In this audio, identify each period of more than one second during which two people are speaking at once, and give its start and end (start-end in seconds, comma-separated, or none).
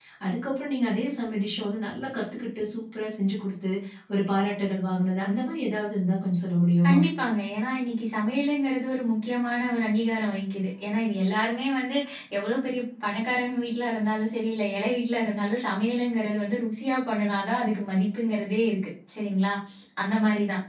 none